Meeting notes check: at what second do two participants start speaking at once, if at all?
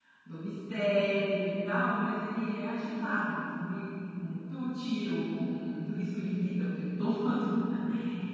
none

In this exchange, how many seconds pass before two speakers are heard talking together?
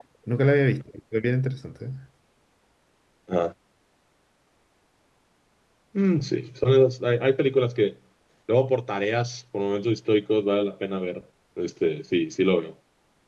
none

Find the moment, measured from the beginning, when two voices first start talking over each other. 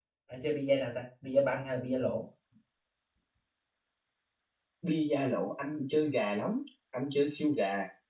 none

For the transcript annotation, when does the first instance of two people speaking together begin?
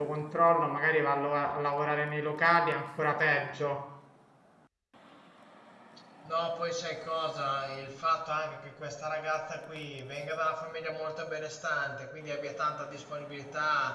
none

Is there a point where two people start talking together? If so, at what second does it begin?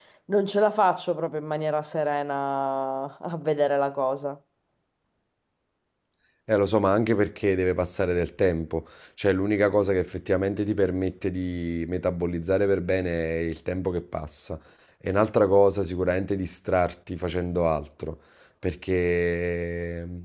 none

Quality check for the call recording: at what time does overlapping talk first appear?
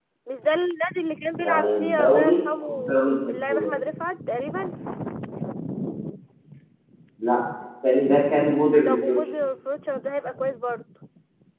1.4 s

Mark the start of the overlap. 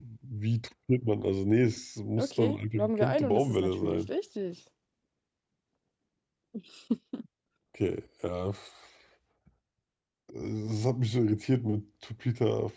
2.2 s

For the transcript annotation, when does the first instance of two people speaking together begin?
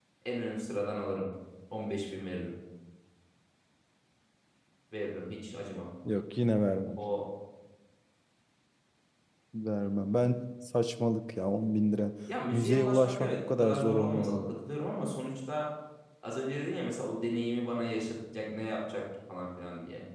12.5 s

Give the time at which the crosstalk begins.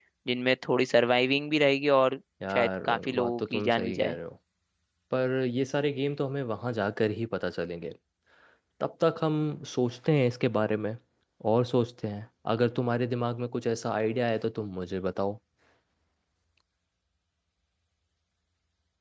2.4 s

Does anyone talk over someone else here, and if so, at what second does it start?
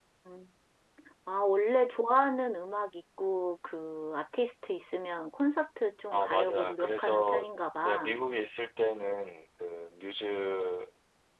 6.1 s

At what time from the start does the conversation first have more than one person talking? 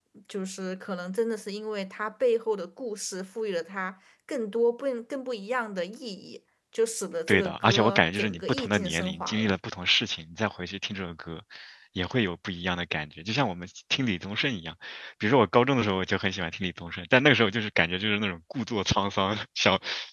7.3 s

